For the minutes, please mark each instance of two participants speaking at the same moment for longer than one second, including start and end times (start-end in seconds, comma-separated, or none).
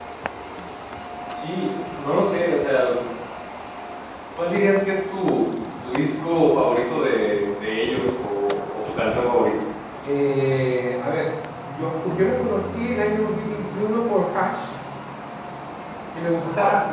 none